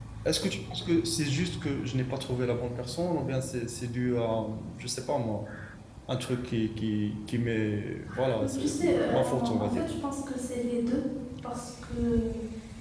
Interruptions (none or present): present